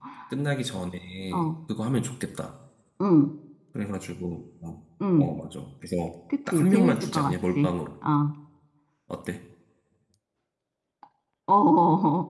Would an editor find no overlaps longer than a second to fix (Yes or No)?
No